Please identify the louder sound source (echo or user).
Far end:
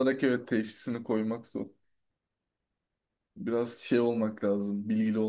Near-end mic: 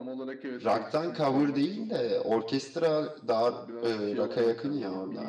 user